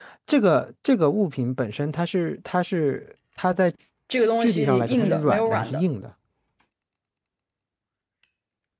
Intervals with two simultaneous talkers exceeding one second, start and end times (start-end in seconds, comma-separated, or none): 4.4-5.8